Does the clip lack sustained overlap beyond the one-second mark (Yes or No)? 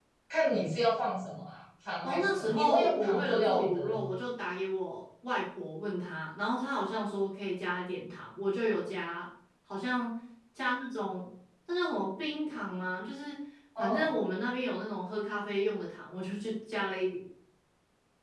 No